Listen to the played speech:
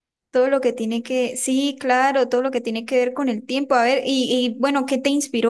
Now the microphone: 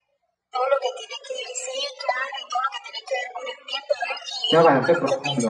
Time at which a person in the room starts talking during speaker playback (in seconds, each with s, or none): 4.5 s